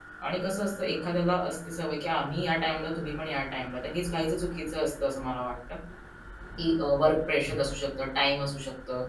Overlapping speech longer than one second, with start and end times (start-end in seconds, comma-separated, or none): none